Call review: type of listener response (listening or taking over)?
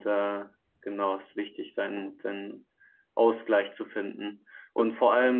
listening